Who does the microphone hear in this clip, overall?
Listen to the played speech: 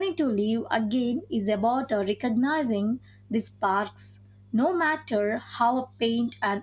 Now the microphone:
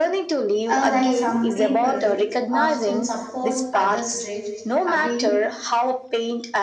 both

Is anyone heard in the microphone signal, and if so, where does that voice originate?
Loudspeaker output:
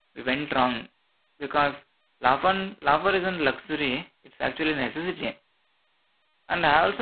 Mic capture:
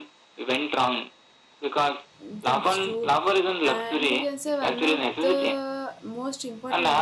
both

